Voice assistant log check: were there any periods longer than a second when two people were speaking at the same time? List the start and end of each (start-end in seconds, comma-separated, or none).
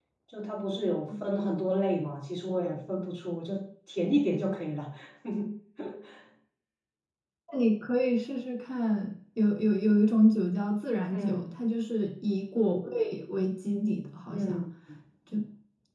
none